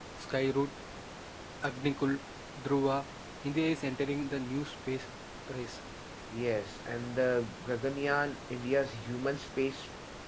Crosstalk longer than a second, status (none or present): none